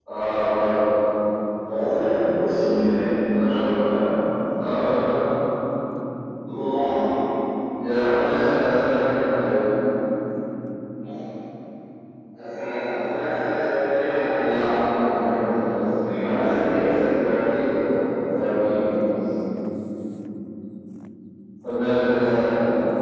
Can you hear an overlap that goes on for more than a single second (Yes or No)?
Yes